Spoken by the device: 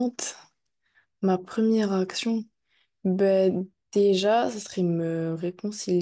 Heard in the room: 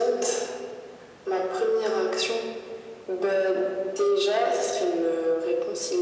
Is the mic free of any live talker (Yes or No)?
Yes